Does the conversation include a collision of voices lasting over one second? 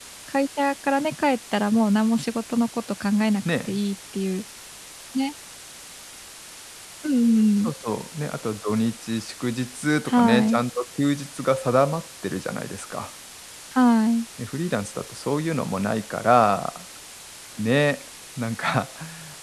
No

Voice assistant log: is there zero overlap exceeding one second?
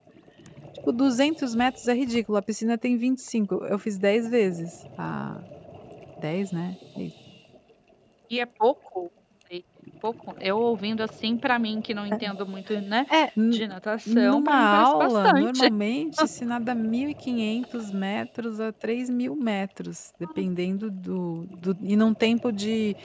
No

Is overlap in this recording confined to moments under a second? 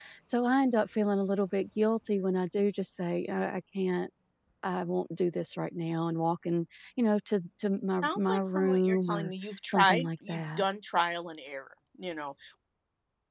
No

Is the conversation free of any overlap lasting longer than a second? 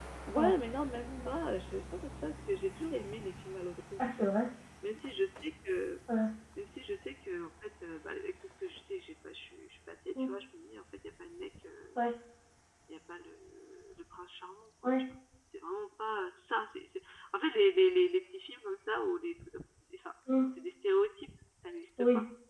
Yes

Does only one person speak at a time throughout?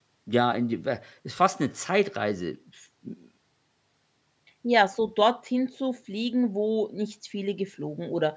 Yes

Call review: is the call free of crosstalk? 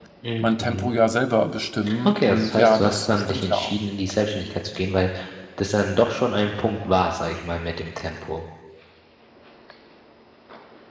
No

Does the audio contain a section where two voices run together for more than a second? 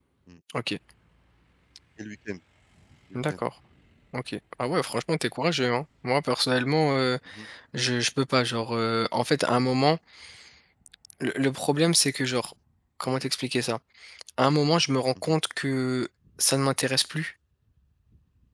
No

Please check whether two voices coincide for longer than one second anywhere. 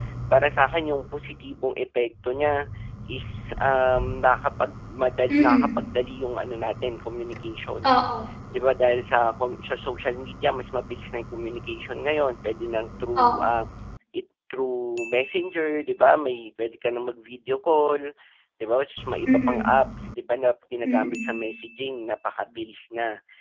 No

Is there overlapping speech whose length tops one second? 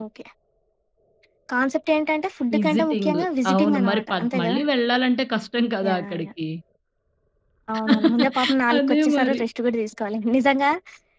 Yes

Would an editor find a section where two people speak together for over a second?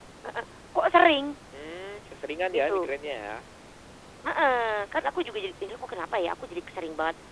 No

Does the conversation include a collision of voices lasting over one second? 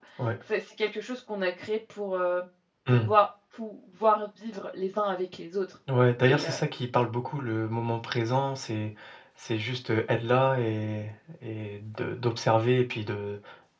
No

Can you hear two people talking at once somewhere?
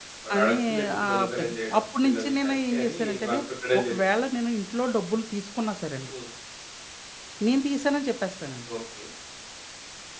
Yes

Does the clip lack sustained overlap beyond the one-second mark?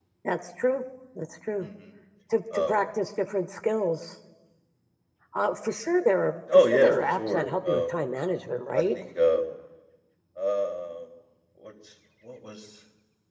No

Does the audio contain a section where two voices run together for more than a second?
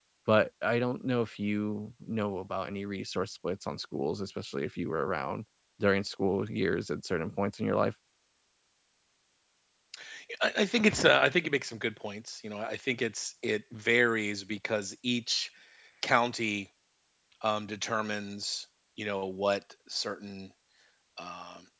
No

